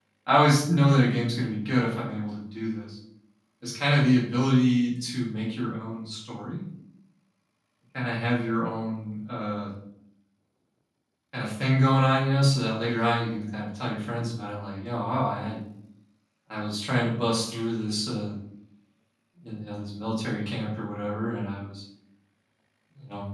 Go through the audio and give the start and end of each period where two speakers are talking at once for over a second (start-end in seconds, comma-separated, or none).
none